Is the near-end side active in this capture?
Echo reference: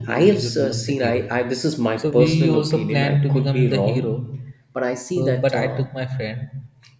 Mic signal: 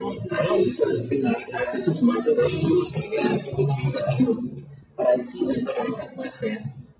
No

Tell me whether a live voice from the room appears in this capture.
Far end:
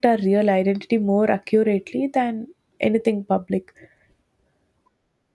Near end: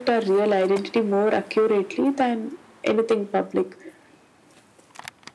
No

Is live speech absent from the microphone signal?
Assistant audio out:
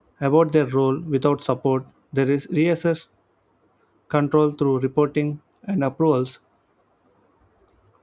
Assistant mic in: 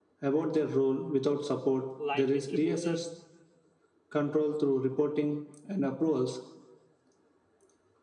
No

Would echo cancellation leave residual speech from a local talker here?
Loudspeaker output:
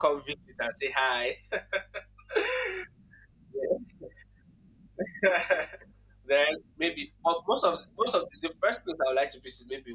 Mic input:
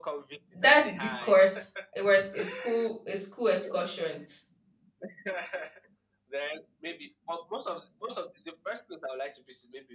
Yes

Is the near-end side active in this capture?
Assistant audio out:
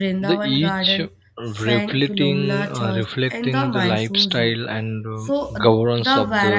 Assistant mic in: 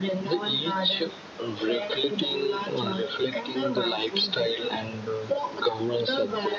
No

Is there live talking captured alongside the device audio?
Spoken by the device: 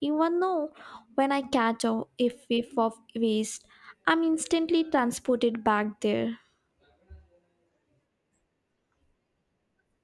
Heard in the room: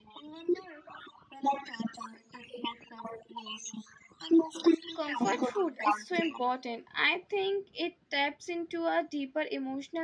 Yes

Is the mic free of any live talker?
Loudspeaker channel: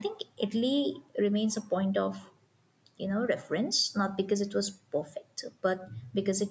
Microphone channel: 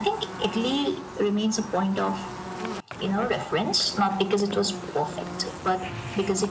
Yes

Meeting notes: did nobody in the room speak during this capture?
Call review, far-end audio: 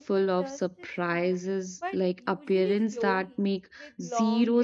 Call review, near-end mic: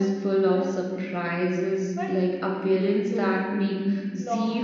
Yes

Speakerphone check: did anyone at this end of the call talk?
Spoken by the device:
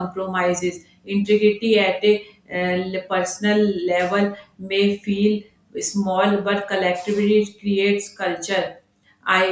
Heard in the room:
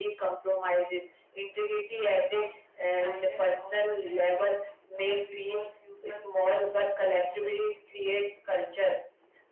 Yes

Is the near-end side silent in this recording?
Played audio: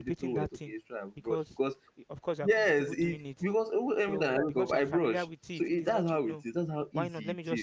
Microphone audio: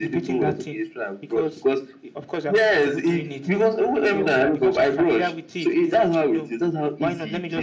Yes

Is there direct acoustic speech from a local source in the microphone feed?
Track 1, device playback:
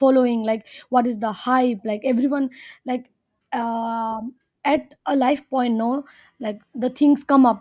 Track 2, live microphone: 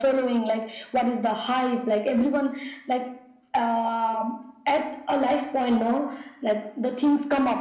No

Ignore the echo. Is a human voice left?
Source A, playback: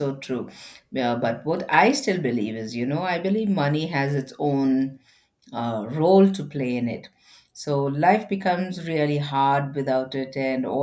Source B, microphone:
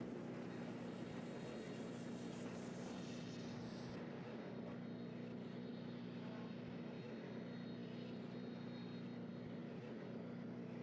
No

